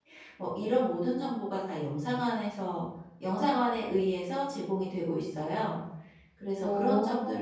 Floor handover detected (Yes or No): No